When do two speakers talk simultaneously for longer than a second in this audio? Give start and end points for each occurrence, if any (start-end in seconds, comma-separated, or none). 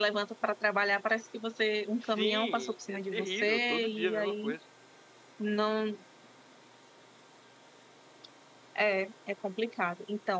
2.2-4.5